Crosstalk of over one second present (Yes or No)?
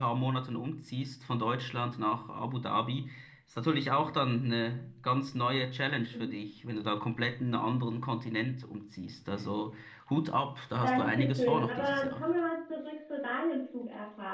Yes